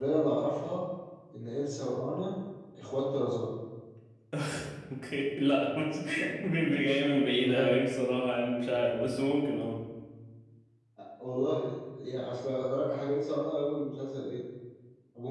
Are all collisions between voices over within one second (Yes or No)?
Yes